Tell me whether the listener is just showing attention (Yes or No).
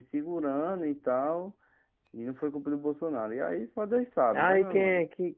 No